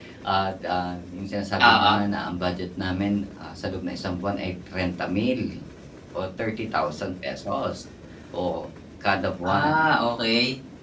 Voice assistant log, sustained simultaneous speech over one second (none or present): none